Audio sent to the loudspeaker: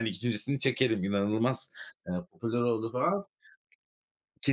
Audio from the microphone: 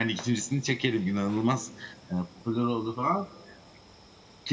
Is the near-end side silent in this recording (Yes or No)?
Yes